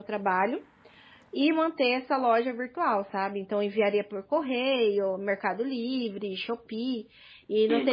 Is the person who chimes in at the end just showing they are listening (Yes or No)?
Yes